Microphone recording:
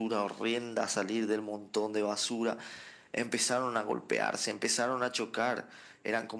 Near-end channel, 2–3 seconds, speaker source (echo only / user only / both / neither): echo only